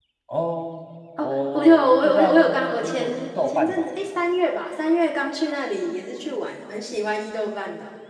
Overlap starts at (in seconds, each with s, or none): 1.2 s